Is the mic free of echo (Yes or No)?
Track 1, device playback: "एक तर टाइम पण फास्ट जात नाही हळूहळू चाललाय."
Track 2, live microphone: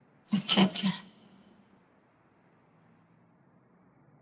Yes